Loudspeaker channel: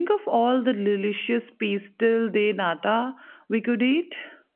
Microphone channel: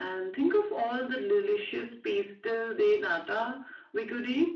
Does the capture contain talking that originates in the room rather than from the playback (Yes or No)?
No